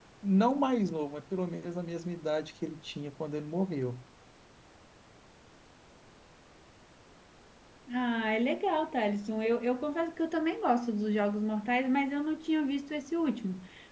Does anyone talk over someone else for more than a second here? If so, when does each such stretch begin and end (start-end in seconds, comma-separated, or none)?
none